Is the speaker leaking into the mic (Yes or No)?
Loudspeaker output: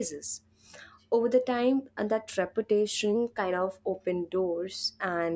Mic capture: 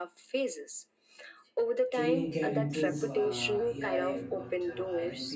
Yes